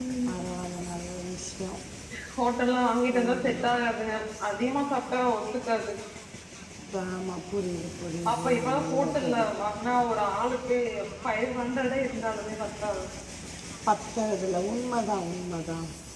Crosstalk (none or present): present